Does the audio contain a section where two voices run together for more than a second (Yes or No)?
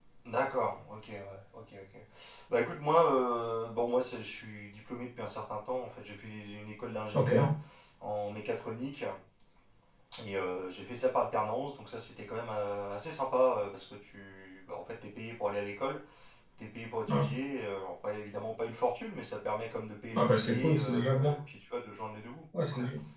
Yes